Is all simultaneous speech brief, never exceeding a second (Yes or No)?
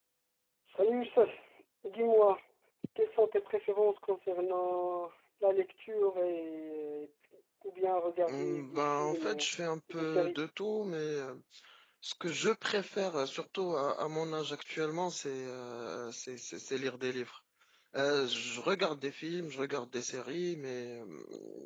No